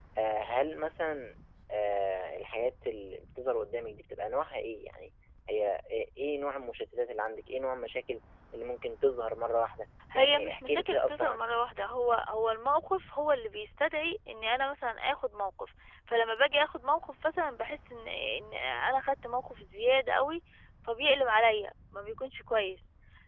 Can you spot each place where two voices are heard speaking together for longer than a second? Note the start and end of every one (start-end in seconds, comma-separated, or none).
10.1-11.4